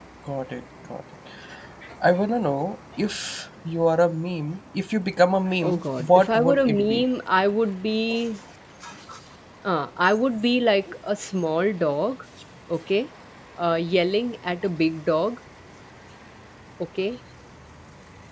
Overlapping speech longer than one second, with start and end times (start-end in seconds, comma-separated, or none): 5.6-7.0